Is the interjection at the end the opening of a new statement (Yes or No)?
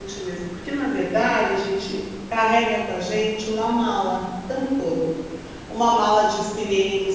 No